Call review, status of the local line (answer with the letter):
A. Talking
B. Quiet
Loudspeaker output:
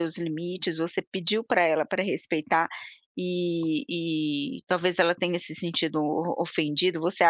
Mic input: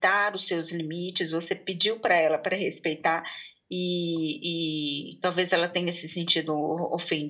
B